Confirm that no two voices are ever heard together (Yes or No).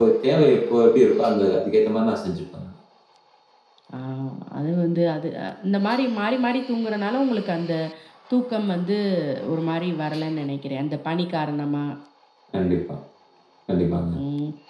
Yes